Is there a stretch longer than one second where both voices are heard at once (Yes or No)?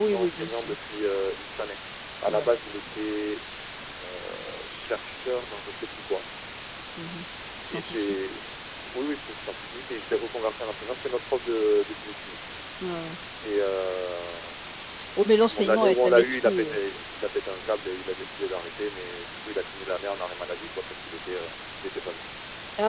Yes